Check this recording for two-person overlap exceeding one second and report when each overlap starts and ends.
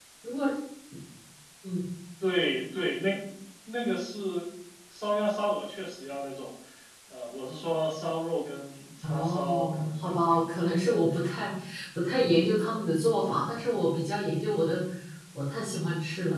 9.0-10.4

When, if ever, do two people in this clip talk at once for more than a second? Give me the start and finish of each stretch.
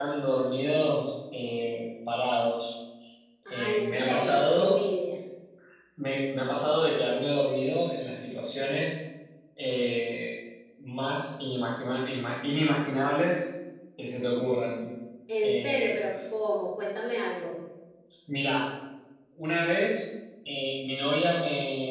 3.5-4.8

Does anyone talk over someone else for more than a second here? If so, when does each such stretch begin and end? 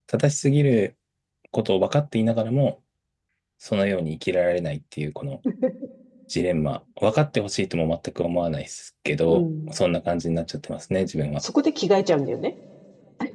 none

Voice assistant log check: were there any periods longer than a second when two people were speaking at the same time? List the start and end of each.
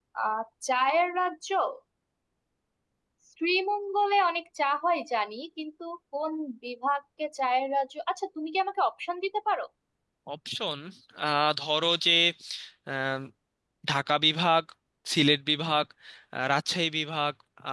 none

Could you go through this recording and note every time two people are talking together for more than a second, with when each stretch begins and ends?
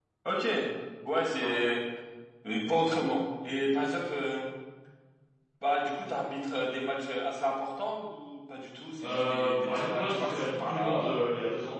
9.0-11.2

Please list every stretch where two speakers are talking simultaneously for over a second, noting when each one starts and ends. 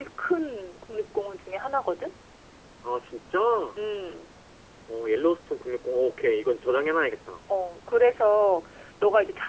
none

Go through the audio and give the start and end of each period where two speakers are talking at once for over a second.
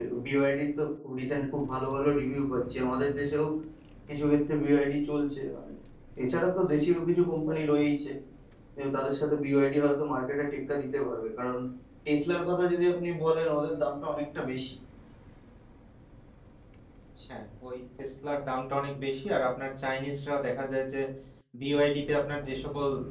none

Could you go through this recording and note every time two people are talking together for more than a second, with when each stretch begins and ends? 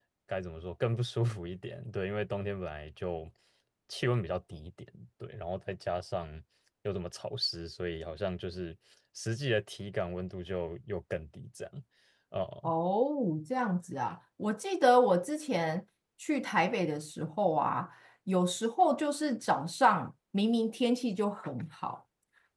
none

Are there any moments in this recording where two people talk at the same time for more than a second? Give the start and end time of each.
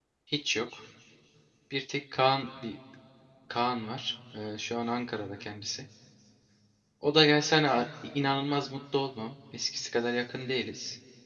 none

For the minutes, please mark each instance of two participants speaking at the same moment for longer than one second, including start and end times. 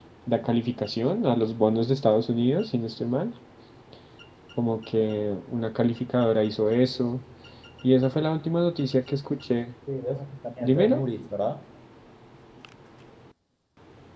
none

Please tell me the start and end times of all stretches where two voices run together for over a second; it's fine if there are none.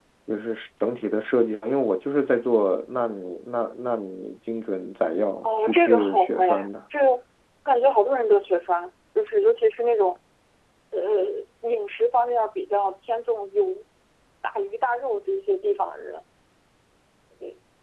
5.4-6.7

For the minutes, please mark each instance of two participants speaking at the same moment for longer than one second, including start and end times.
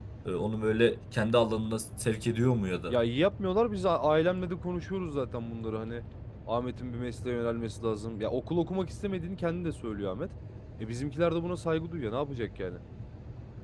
none

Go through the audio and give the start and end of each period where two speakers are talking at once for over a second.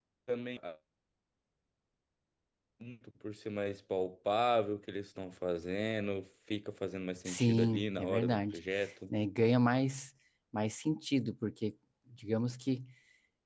7.2-8.6

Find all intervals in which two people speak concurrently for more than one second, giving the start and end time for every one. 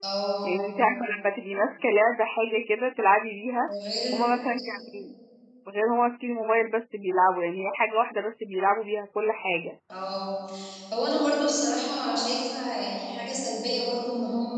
none

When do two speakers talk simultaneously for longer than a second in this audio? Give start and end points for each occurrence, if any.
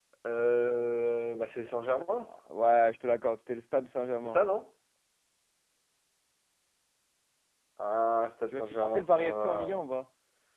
8.5-9.8

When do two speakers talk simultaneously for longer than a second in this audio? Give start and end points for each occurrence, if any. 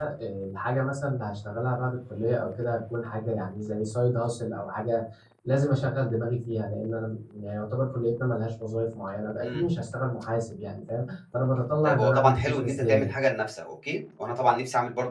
11.8-13.1

